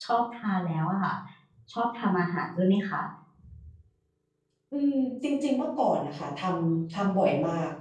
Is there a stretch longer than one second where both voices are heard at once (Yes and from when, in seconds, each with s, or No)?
No